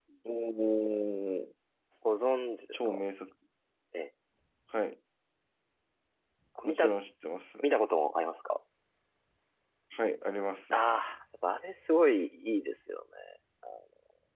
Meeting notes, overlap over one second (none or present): none